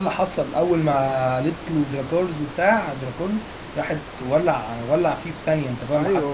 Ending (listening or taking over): taking over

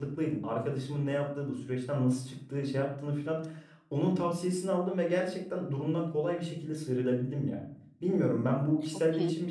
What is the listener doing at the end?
listening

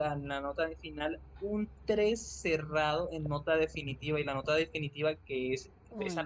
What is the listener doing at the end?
listening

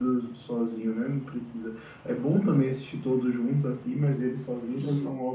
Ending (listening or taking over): listening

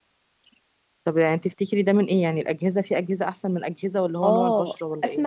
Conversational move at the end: taking over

